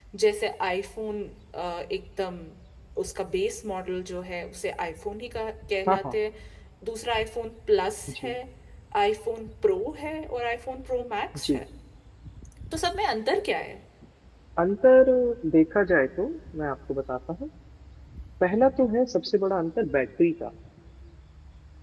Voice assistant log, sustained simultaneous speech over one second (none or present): none